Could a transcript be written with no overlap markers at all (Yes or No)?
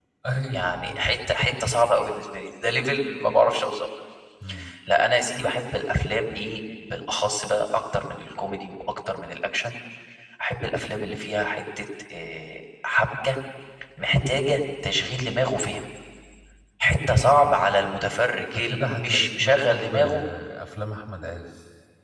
No